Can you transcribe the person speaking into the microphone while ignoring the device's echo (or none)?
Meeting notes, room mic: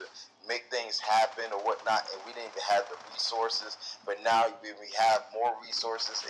none